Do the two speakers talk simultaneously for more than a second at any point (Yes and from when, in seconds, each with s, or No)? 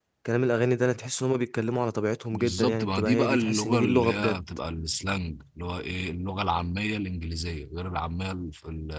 Yes, from 2.3 s